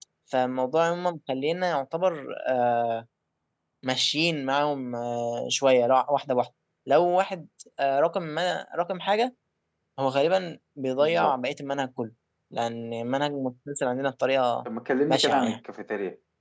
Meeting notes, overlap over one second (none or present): none